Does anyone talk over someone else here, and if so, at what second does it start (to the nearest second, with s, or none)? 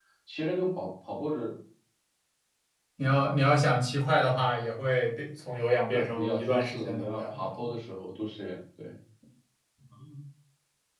6 s